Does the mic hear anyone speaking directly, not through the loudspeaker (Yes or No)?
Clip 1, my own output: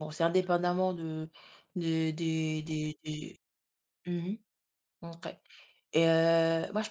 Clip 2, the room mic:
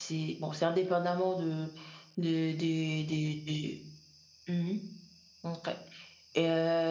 No